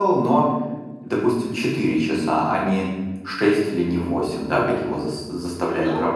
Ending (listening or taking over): taking over